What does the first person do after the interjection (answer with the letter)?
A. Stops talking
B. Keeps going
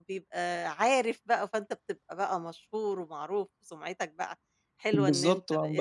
A